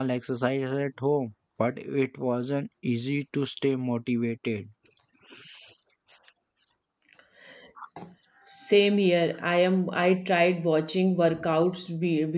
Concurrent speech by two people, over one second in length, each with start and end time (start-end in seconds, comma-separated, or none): none